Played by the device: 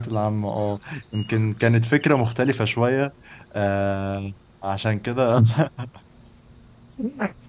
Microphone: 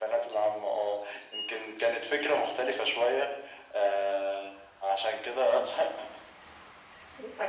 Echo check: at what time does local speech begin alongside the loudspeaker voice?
none

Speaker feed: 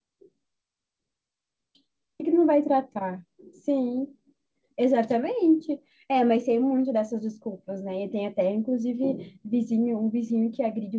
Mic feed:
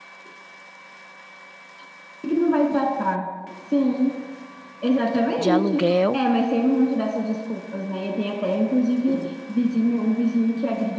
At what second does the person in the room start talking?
5 s

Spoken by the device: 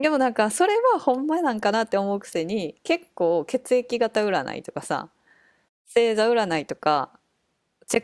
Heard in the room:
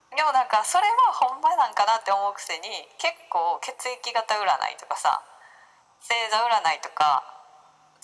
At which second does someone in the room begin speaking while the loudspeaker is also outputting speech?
none

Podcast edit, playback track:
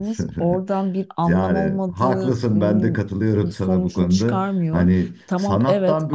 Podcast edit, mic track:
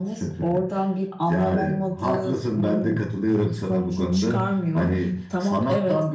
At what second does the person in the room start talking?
none

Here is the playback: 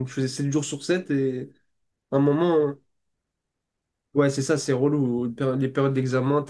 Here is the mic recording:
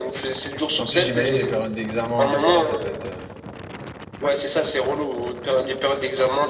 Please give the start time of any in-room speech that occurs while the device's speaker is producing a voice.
1 s

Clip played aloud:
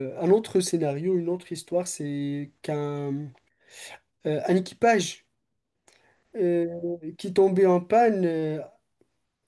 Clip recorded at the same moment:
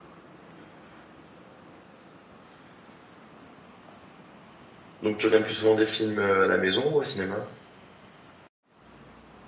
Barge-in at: 5 s

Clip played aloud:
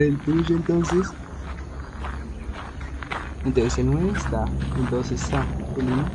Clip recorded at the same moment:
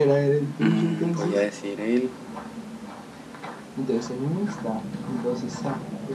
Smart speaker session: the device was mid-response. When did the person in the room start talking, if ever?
1 s

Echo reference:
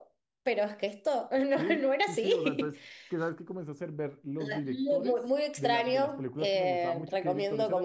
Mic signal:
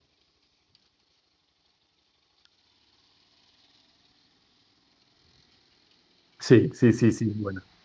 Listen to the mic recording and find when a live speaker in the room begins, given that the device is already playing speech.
6 s

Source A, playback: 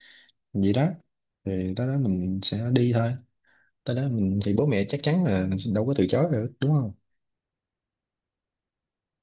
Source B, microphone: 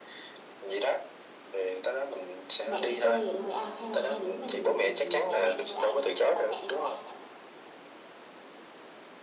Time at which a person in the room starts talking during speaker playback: 3 s

